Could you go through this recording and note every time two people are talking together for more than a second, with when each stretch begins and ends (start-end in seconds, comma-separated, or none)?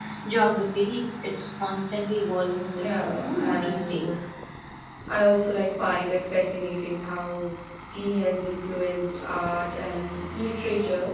2.8-4.2